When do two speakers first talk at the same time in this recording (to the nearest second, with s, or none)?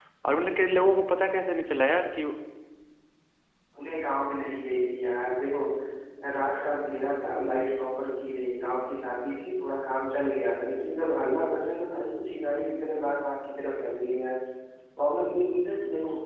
none